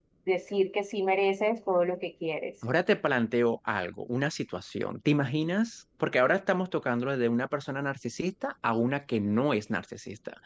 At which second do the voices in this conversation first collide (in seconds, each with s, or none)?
none